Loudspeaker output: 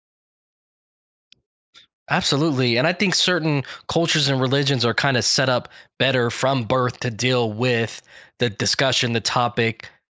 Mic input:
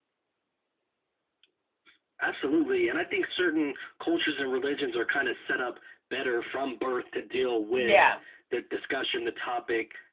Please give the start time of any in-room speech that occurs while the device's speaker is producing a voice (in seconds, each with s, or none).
7.8 s